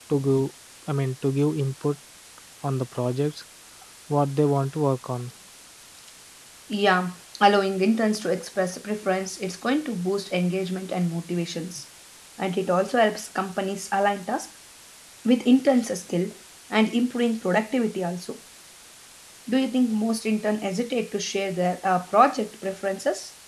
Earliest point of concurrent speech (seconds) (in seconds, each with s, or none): none